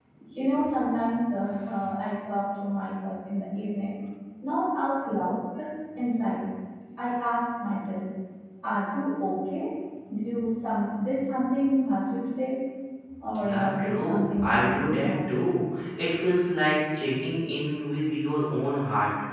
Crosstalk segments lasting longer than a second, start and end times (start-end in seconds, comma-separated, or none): 13.4-15.4